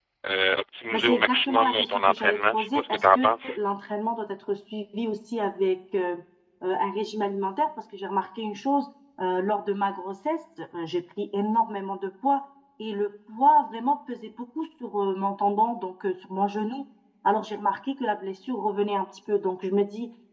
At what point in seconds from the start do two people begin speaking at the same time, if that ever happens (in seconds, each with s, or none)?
0.9 s